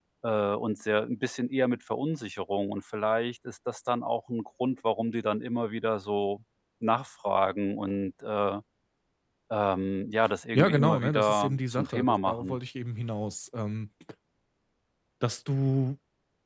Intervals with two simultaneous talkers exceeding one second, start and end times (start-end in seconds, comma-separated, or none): 10.6-12.6